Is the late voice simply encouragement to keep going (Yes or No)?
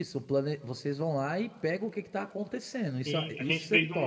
No